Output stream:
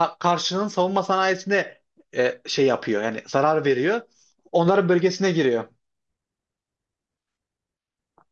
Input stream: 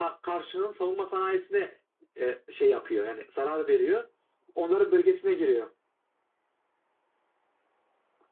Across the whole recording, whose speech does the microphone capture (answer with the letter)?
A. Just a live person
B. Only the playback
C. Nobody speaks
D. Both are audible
B